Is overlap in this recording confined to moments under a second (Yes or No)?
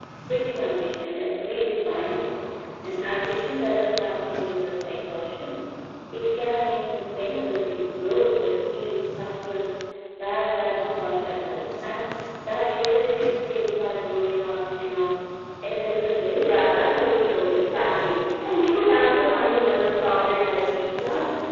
Yes